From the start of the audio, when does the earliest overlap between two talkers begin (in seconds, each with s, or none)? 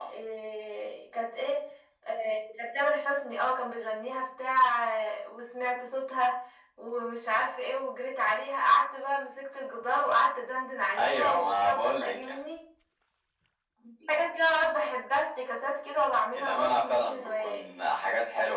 11.0 s